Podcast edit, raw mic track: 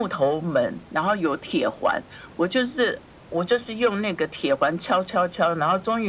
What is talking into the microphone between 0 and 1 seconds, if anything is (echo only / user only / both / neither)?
echo only